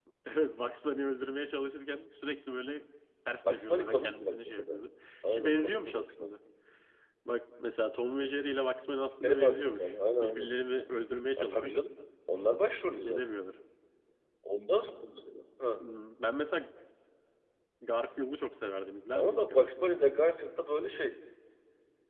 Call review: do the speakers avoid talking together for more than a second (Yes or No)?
No